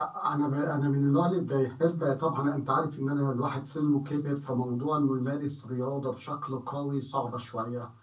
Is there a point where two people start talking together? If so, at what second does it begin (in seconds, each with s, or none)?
none